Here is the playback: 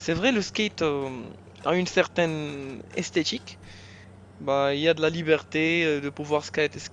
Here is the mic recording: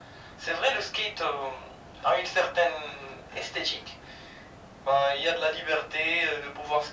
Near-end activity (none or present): none